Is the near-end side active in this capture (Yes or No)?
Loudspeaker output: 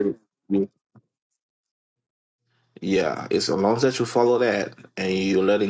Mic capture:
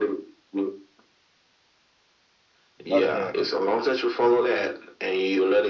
Yes